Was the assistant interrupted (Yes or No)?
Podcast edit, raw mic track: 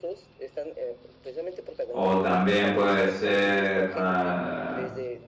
Yes